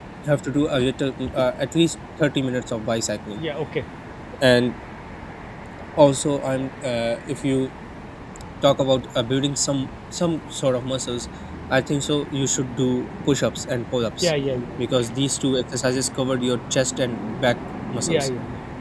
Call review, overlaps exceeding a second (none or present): none